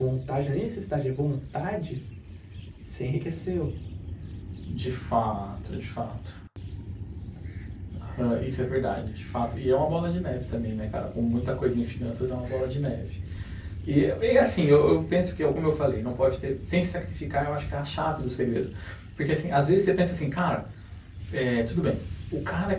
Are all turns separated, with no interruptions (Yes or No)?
Yes